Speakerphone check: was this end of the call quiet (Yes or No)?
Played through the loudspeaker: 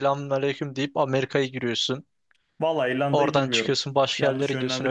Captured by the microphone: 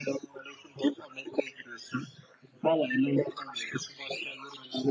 Yes